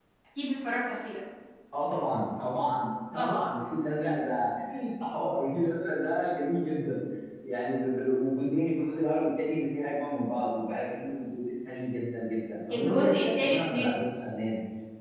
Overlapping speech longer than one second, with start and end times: 12.7-14.0

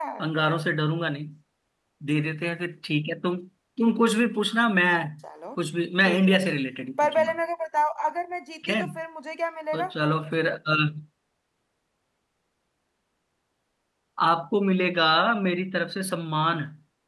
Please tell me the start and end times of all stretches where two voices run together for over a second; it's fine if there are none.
none

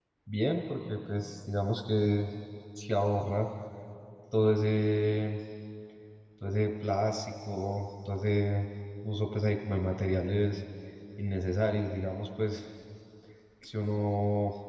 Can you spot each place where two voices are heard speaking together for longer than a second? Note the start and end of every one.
none

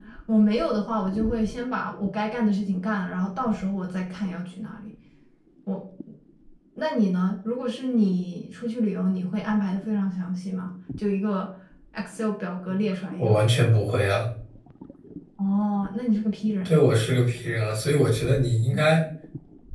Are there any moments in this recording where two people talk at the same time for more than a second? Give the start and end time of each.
none

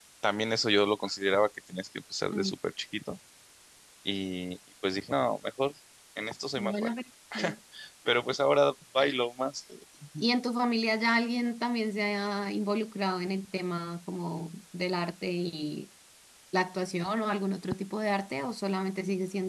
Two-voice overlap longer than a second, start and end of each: none

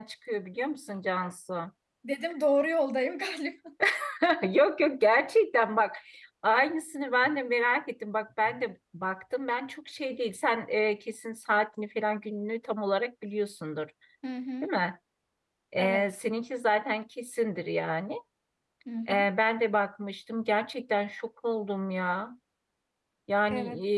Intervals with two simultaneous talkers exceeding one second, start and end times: none

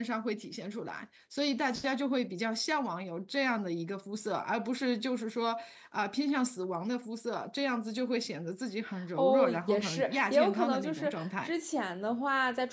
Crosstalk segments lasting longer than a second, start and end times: 9.2-11.5

